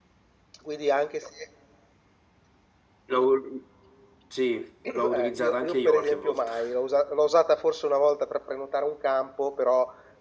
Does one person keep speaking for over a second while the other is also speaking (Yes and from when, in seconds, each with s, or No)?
Yes, from 4.9 s